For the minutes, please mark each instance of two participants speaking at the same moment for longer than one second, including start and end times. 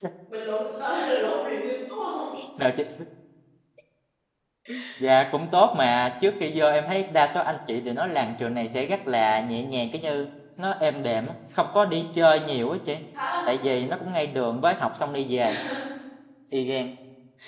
none

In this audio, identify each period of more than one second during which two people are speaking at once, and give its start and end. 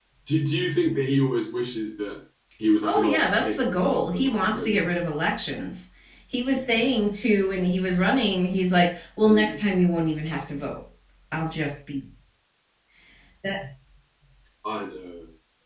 2.8-4.9

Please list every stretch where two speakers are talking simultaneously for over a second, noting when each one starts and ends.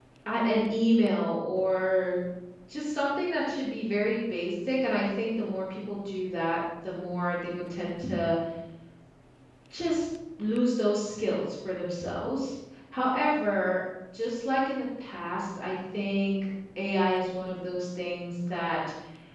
none

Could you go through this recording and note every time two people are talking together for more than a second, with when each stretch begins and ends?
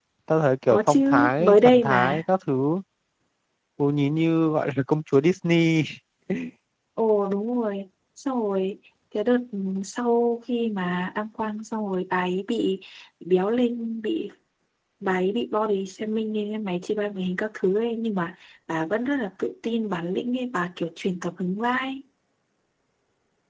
0.7-2.2

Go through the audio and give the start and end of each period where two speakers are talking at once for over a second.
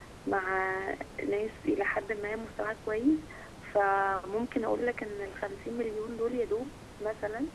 none

